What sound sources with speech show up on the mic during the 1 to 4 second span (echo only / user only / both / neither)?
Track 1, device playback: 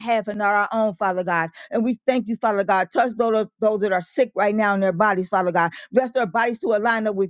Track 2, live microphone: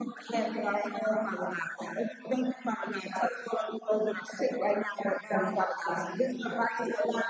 echo only